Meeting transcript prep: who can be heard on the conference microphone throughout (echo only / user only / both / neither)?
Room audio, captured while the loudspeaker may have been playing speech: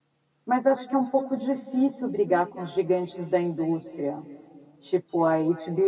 user only